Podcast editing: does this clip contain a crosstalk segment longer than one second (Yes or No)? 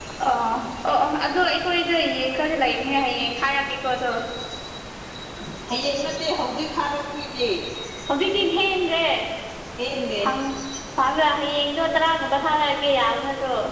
No